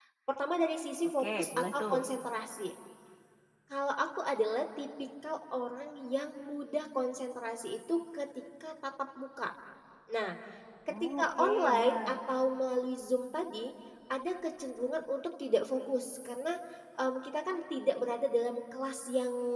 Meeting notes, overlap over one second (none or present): present